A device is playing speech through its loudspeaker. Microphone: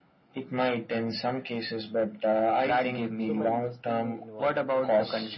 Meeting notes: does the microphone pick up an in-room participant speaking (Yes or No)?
Yes